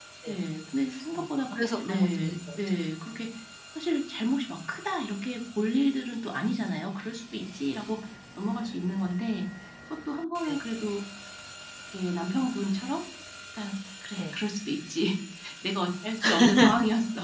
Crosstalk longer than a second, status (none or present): present